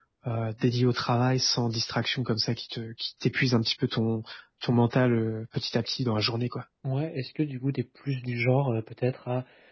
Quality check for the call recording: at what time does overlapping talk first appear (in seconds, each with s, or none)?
none